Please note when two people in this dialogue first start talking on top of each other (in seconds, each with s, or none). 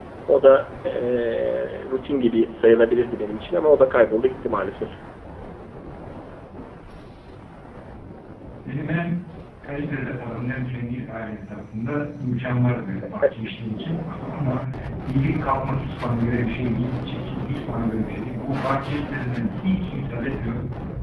none